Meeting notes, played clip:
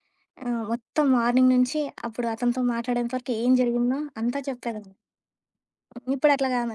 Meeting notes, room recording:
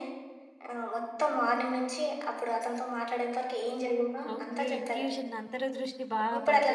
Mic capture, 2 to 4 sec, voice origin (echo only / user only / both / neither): echo only